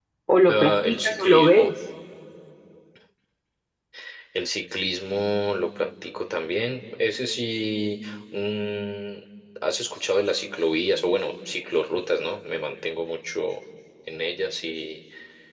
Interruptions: present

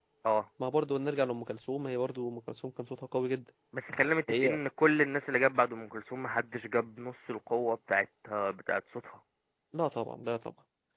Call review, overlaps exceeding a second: none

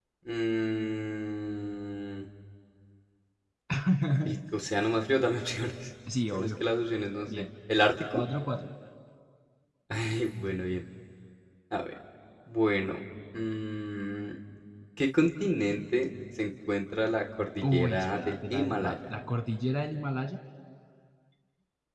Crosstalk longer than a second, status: present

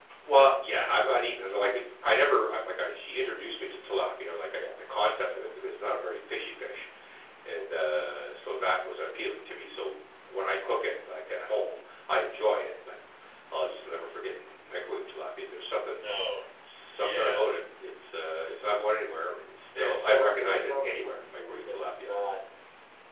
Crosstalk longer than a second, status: present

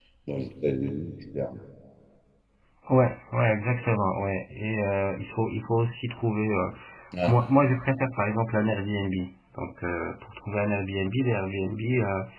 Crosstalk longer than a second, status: none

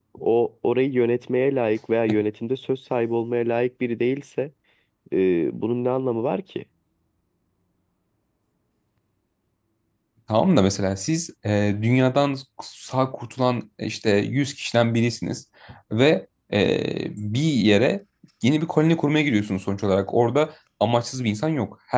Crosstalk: none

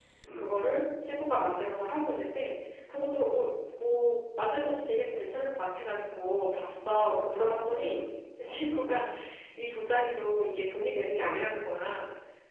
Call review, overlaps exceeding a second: none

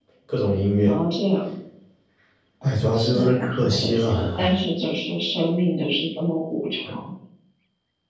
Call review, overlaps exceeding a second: present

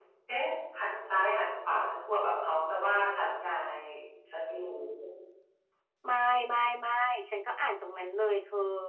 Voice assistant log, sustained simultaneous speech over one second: none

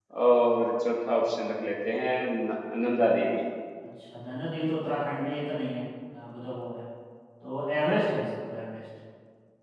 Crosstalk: none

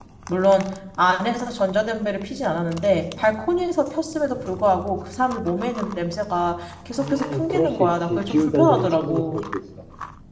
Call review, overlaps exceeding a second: present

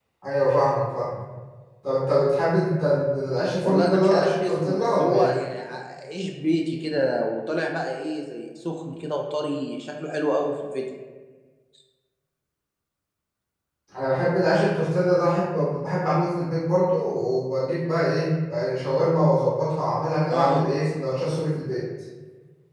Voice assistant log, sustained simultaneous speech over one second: present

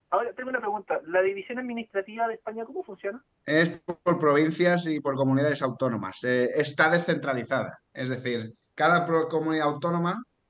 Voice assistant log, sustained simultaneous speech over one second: none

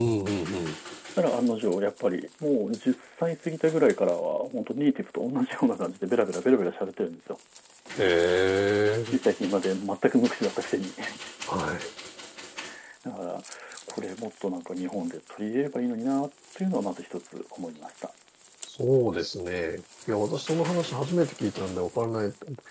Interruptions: none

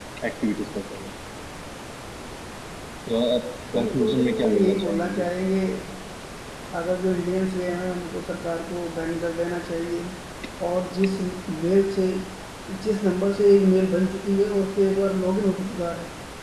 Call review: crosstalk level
present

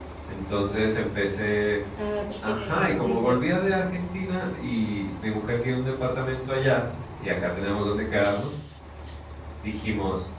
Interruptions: present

